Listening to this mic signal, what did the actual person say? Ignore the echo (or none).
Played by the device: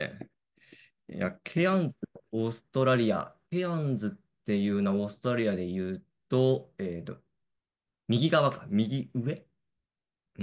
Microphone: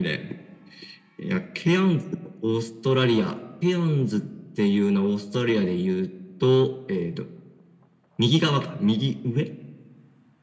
none